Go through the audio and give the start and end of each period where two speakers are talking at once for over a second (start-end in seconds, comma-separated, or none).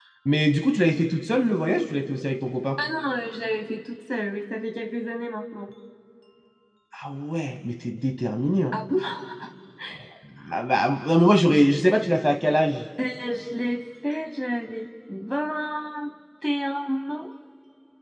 none